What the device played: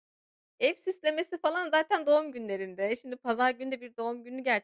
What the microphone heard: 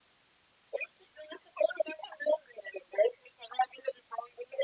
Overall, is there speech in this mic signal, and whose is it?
echo only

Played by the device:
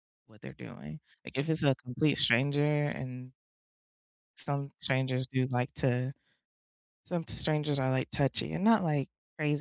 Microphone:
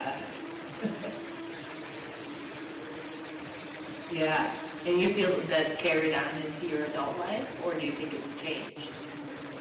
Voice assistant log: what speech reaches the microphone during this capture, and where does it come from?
user only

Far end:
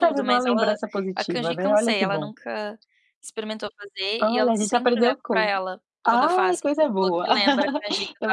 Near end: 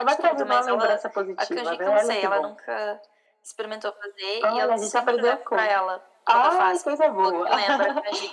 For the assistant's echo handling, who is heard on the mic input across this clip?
echo only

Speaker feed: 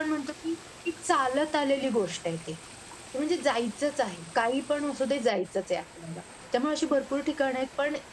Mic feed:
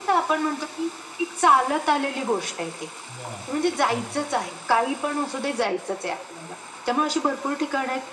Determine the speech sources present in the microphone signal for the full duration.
both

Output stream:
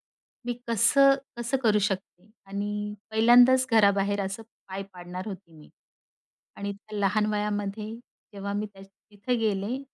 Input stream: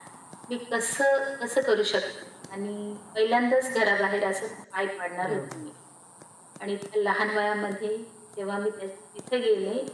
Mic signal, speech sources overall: both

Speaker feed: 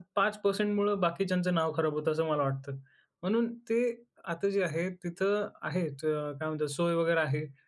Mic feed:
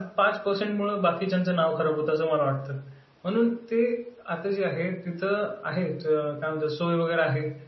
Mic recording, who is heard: echo only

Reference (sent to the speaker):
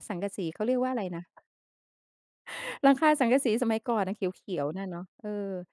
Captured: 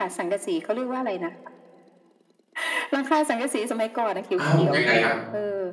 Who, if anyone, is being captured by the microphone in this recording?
both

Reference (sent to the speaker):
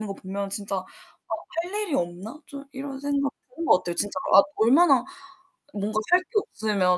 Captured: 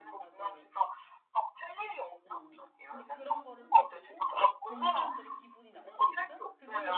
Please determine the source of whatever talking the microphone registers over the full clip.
both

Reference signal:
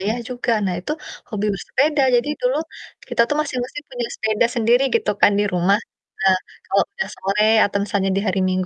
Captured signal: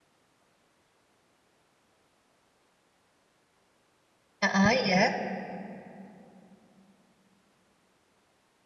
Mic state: user only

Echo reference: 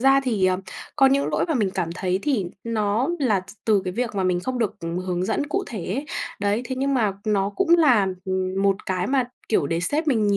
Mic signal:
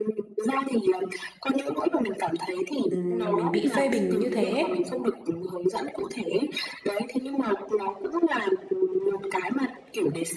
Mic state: both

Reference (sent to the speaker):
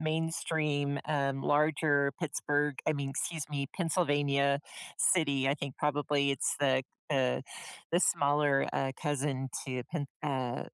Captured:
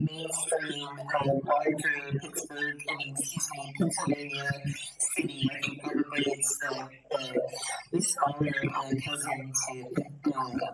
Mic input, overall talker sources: echo only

